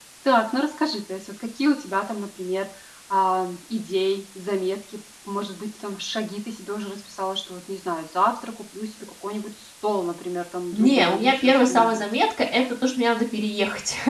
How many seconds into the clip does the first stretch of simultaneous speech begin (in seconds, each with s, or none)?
10.7 s